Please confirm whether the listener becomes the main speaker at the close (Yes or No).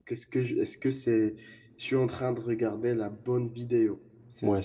Yes